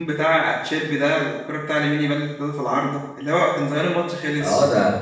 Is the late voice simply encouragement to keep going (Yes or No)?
No